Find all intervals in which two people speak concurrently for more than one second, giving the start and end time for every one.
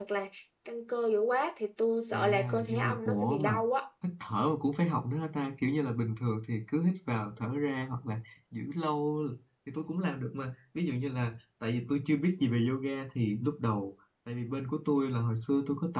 2.1-3.6

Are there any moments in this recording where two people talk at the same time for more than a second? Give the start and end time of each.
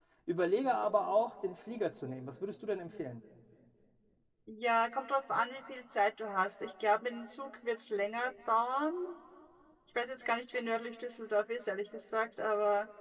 none

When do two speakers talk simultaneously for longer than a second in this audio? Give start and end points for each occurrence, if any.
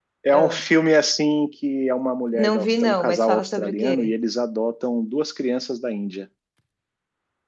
2.3-4.1

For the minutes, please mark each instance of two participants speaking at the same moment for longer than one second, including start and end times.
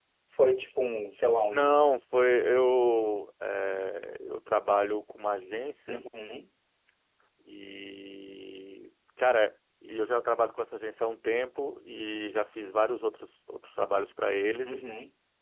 none

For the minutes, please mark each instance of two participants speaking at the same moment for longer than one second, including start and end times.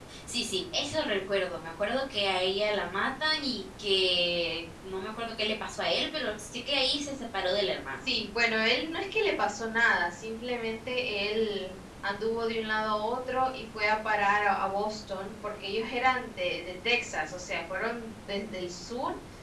none

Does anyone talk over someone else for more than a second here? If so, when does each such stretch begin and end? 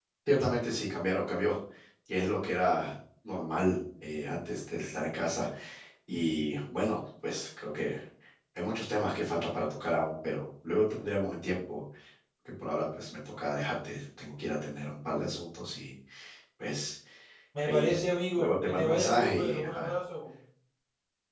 18.4-20.0

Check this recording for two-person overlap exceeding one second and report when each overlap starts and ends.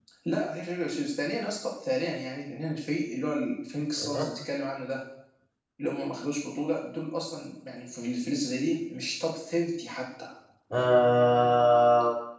none

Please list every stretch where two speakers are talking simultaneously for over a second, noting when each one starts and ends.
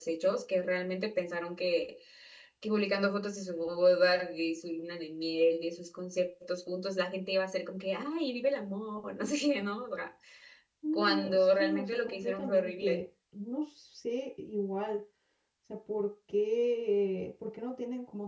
10.9-13.0

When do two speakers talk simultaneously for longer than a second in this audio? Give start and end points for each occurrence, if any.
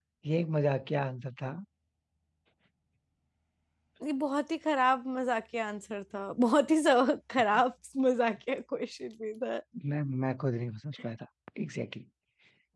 none

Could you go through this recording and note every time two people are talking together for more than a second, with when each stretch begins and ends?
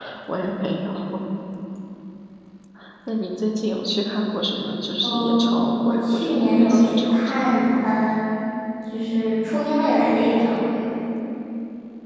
5.0-7.8

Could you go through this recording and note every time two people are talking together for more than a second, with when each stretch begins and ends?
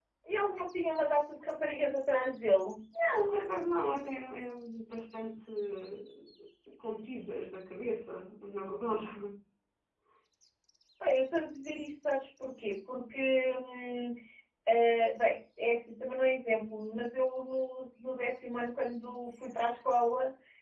none

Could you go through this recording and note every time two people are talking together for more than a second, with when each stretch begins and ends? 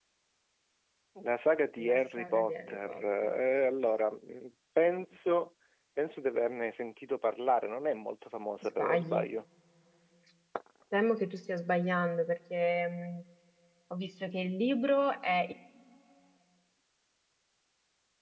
1.9-3.4

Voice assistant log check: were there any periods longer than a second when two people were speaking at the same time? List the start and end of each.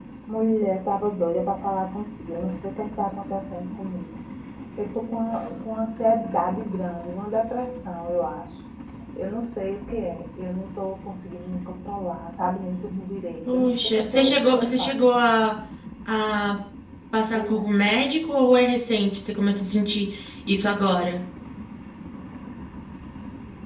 13.5-14.9

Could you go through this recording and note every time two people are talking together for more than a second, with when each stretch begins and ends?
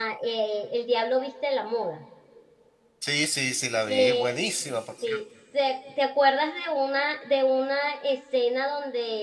none

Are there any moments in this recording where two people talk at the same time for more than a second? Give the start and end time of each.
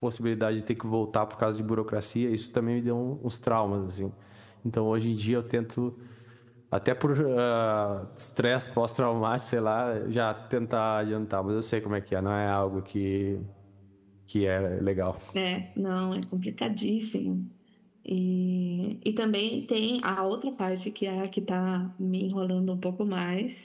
none

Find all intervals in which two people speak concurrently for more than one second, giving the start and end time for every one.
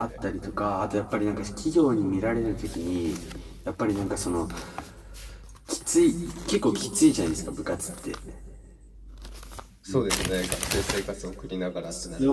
none

